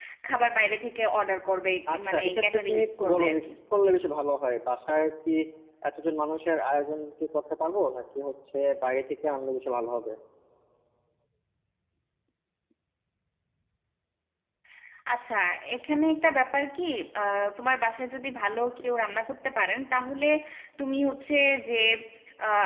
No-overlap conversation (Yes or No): No